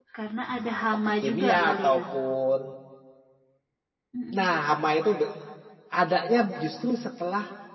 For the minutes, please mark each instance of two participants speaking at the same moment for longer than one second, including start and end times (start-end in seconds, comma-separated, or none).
0.6-2.0